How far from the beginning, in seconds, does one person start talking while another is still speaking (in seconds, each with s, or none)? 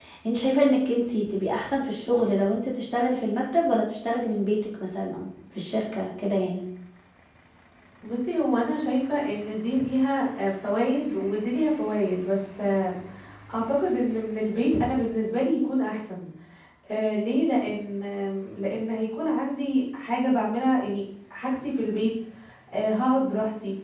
none